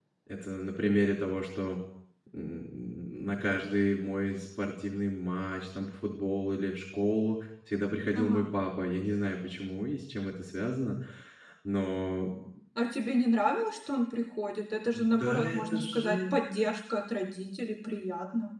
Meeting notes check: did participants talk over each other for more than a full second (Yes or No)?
Yes